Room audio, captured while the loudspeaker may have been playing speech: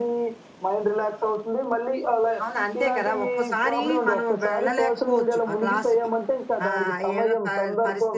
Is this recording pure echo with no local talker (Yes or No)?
Yes